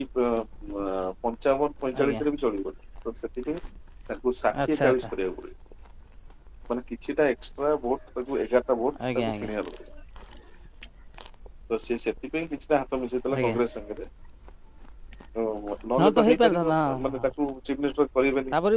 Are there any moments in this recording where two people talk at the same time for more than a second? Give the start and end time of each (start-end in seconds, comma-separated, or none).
16.0-17.3